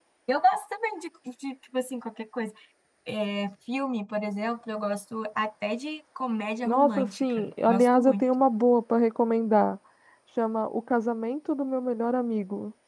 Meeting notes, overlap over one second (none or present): present